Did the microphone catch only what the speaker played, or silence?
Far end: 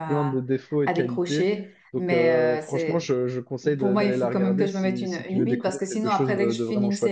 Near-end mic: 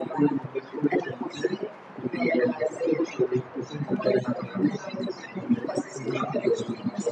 No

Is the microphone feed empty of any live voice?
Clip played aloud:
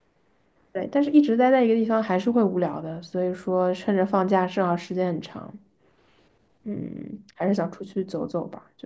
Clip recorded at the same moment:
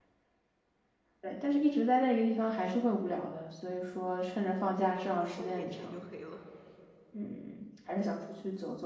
No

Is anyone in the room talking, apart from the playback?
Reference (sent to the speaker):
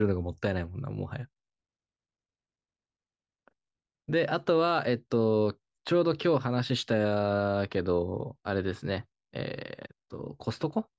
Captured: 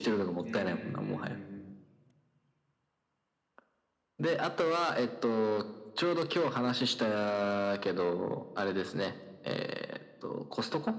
Yes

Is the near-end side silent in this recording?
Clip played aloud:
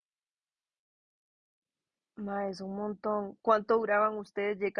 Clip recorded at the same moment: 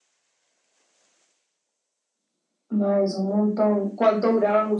Yes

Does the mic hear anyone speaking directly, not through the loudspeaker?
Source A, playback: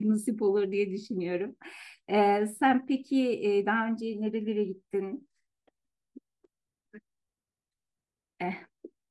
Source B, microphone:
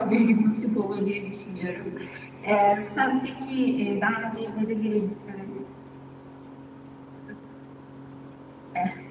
No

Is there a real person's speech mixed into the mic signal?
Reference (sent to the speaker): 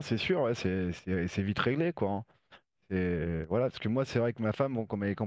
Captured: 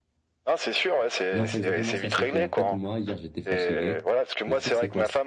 Yes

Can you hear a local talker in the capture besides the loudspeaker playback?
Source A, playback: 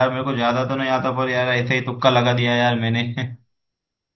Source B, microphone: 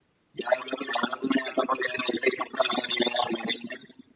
No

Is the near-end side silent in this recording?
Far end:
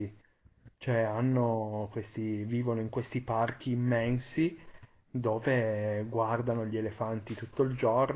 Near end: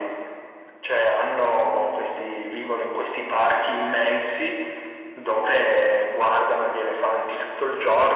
Yes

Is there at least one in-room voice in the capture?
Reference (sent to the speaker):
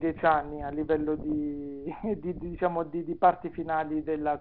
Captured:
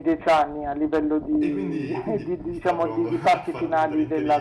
Yes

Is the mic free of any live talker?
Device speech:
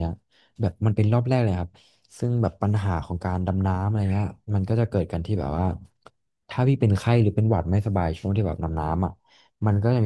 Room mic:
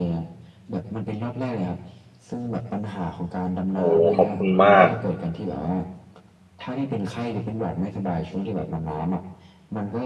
No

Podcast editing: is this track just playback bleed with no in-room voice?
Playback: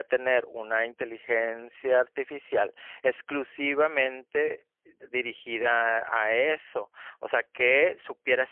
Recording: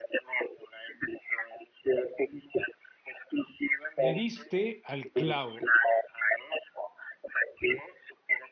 No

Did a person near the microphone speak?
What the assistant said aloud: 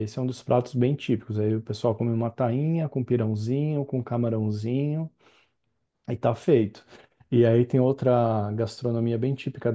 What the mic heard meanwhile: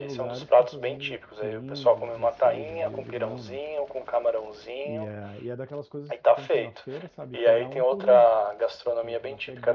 Yes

